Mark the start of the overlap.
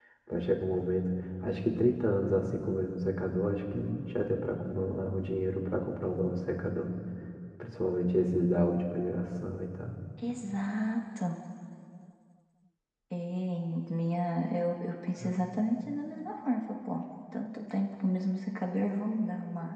none

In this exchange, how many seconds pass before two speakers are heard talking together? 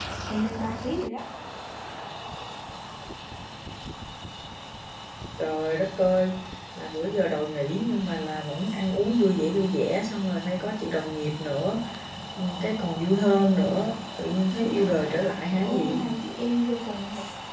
14.5 s

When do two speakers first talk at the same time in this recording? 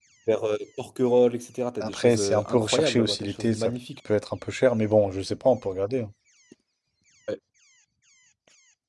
1.8 s

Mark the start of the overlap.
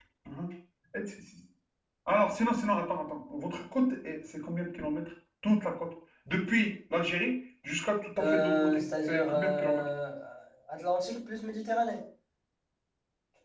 8.2 s

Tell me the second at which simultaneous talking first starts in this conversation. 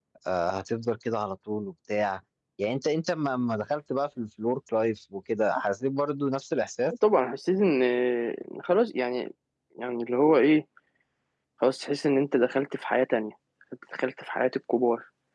none

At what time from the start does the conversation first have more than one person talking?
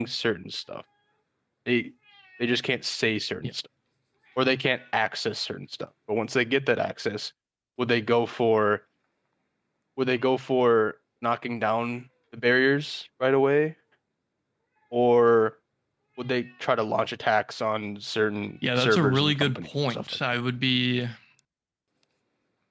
18.6 s

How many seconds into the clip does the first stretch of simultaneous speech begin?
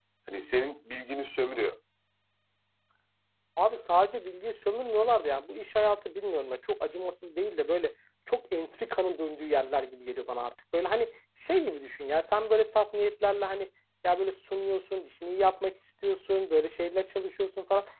none

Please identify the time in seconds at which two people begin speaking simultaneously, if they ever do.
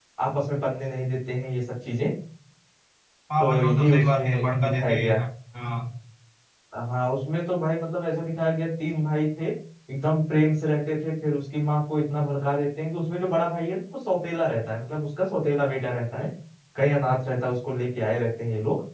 3.4 s

